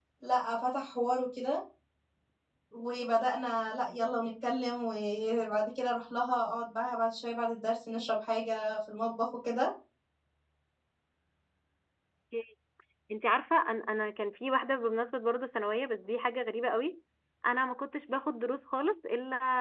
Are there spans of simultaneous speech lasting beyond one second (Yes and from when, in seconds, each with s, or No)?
No